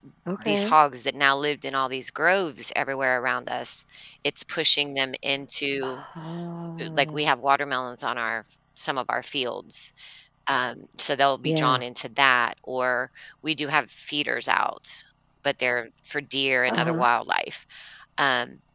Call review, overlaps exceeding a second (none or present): none